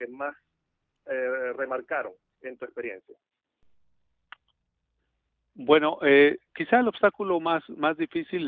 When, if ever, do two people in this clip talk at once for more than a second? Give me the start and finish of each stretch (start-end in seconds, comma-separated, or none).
none